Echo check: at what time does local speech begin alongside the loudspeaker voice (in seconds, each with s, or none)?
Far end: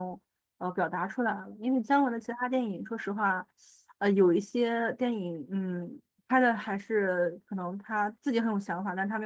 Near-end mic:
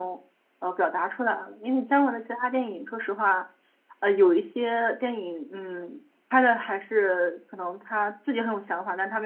none